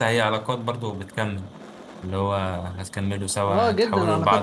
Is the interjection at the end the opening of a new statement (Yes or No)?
Yes